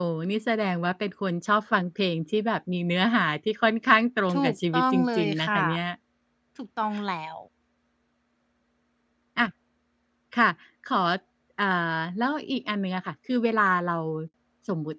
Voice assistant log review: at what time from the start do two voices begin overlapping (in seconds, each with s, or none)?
4.3 s